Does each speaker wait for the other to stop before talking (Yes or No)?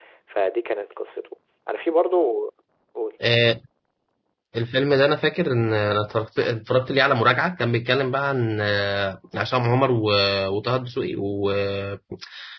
Yes